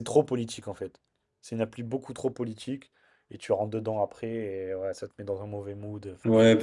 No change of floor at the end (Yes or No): No